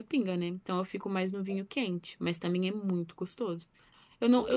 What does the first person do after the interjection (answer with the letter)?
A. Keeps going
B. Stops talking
A